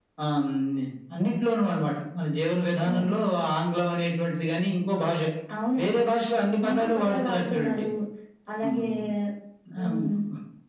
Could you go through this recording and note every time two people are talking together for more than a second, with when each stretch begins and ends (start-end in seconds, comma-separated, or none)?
6.6-7.8